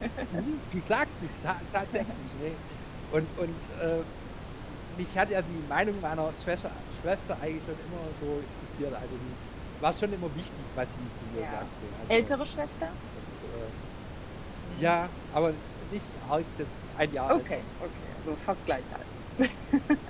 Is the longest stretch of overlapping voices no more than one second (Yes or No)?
Yes